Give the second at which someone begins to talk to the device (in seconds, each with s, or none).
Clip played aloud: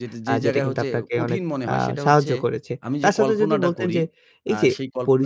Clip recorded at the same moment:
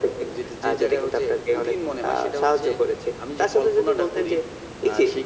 none